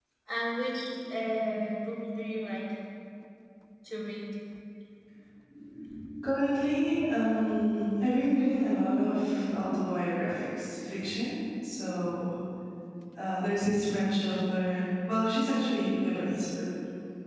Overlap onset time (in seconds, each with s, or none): none